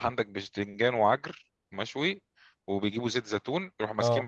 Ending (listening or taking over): listening